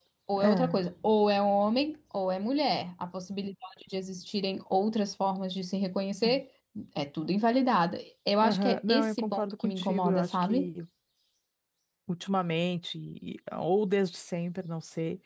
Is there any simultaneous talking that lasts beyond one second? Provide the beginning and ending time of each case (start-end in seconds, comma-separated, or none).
8.4-10.7